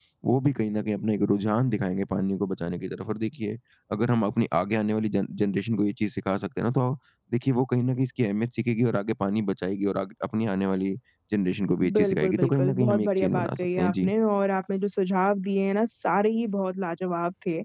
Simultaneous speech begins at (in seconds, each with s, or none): 11.9 s